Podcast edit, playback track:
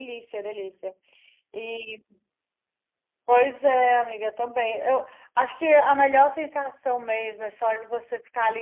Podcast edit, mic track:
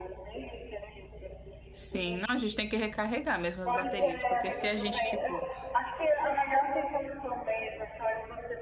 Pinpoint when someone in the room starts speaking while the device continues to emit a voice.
1.7 s

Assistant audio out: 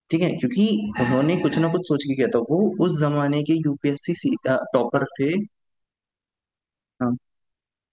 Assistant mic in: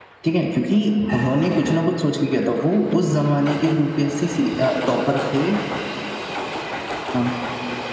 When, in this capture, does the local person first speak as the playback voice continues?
none

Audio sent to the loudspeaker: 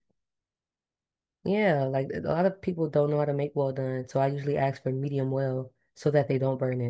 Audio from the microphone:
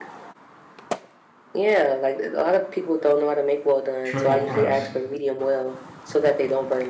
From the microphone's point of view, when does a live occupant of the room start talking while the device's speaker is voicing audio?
4.0 s

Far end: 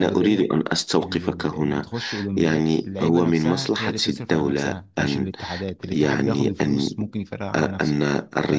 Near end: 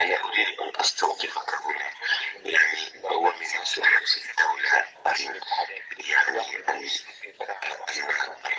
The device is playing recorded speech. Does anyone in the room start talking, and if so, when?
none

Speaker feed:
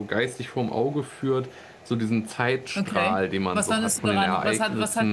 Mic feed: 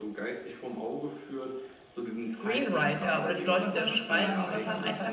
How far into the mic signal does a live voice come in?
2.2 s

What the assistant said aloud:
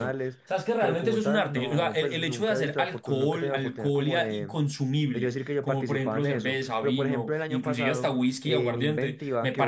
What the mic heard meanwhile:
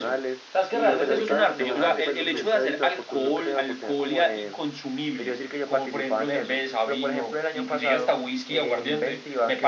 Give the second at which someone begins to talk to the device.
0.7 s

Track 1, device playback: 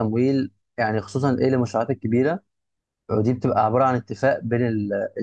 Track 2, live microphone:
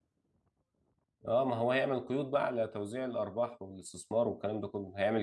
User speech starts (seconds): 1.3 s

